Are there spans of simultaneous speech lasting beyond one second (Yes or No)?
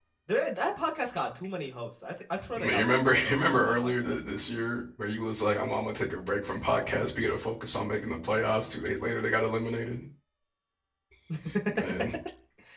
Yes